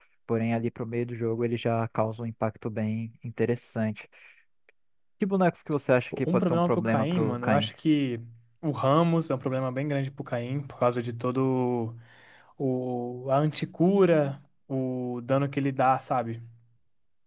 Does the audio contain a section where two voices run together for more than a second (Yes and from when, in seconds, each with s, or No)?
Yes, from 6.1 s